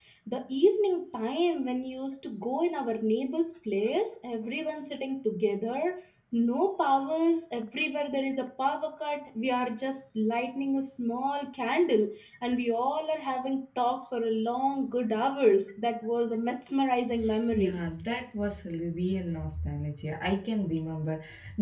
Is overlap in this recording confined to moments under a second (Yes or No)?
Yes